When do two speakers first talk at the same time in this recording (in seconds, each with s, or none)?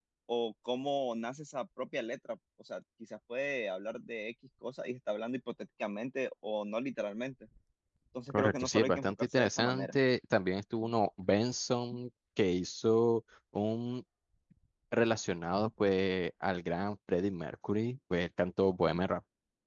8.3 s